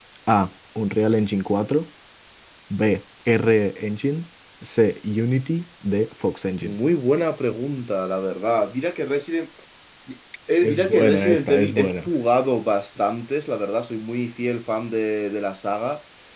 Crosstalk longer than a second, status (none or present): present